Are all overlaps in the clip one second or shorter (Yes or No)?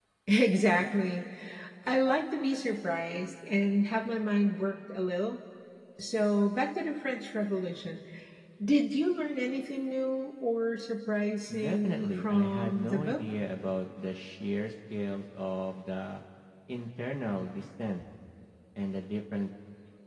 No